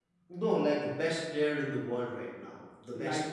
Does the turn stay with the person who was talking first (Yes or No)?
No